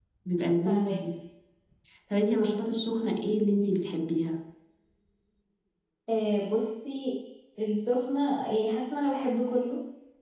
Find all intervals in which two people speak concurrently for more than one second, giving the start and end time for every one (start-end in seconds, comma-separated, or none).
none